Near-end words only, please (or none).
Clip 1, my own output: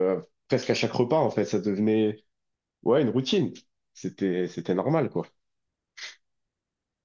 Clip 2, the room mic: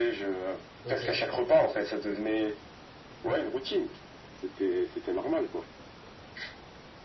Ok.